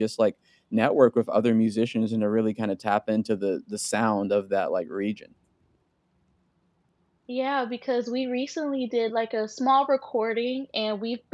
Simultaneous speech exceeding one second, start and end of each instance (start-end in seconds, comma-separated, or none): none